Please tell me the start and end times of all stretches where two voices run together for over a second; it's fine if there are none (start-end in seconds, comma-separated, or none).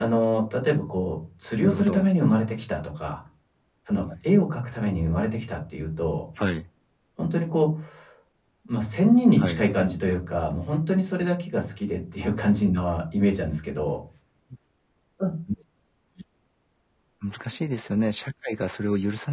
none